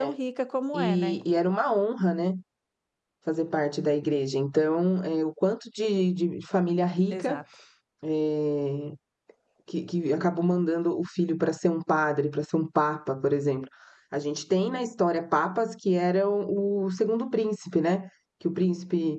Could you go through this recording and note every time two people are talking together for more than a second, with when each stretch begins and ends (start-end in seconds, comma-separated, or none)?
none